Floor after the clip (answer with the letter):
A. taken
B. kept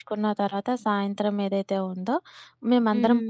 B